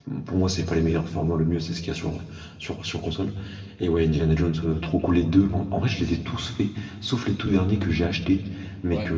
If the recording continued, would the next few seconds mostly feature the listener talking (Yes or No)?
No